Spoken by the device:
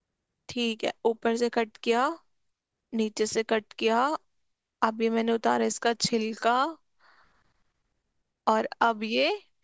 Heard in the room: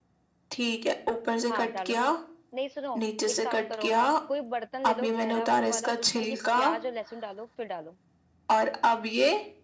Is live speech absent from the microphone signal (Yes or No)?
No